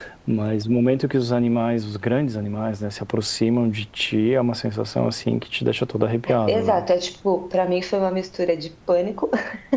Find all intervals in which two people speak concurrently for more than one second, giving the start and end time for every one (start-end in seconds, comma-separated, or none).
none